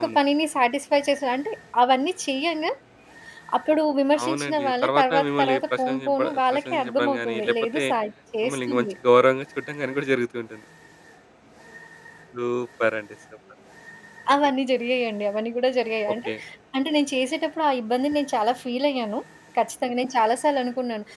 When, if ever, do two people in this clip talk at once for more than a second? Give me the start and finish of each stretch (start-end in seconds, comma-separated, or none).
4.2-7.8